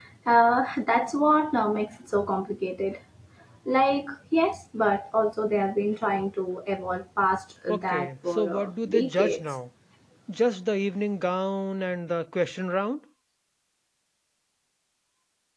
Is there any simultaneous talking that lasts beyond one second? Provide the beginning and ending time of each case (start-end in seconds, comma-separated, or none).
7.7-9.4